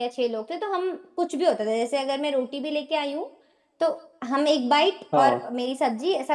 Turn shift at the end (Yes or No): No